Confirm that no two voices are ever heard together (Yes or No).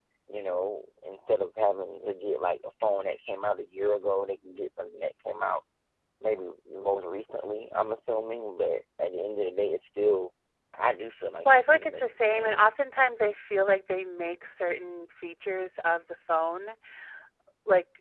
No